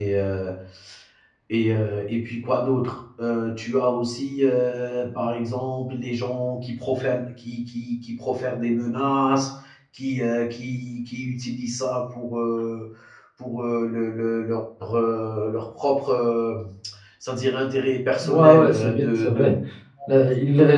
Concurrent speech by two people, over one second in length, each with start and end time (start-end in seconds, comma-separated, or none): 18.2-19.4